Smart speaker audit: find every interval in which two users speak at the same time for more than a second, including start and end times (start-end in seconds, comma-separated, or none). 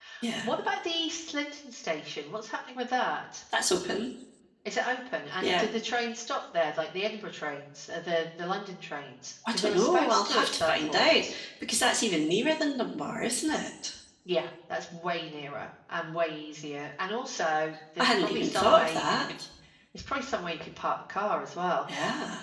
9.5-11.2, 18.0-19.2